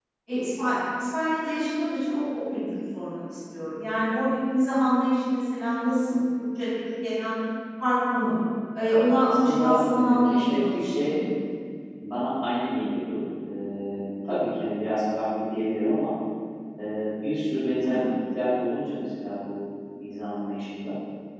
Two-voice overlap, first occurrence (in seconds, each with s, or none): 9.2 s